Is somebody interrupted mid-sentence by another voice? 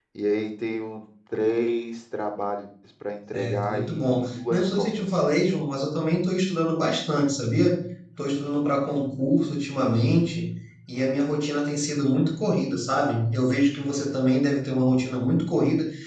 Yes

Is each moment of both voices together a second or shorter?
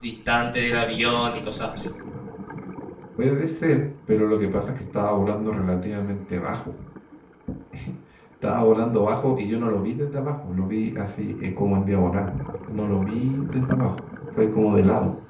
Yes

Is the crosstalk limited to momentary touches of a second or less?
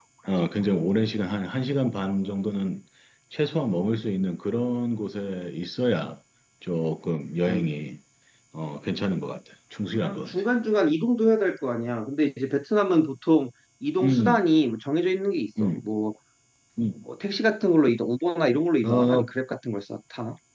Yes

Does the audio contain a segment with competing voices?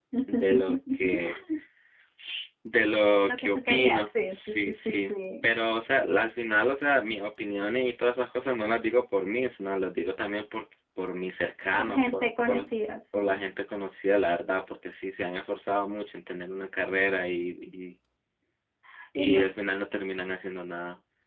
Yes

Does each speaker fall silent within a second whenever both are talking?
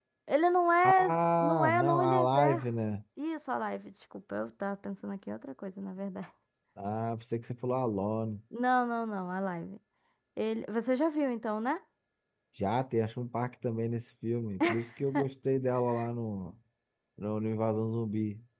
No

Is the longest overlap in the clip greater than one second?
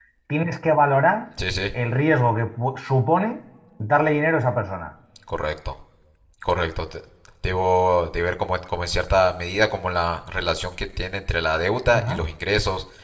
No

